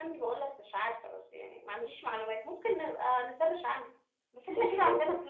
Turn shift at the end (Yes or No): No